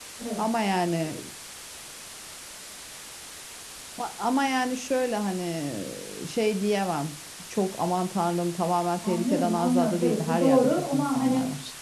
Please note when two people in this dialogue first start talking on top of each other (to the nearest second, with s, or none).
9 s